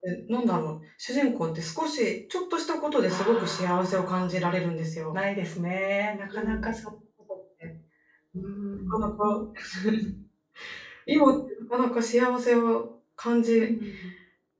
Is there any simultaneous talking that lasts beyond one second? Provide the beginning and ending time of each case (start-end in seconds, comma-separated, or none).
3.1-4.3